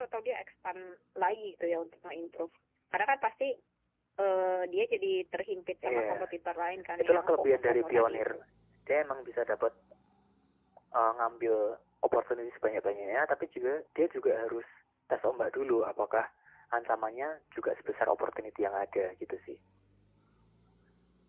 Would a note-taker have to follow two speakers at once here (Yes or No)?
Yes